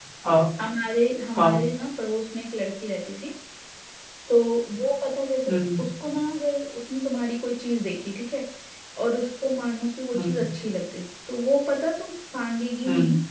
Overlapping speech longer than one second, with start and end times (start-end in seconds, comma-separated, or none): none